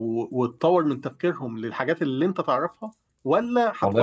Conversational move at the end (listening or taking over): listening